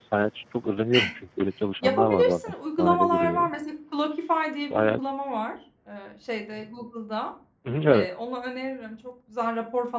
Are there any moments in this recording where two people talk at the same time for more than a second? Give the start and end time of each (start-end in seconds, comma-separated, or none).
1.8-3.5